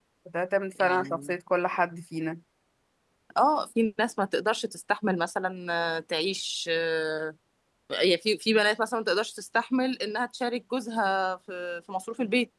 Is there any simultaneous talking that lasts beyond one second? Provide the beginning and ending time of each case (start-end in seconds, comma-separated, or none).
none